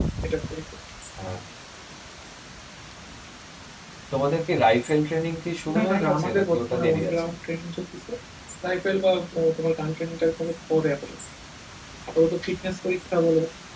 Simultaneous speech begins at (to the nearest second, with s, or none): 6 s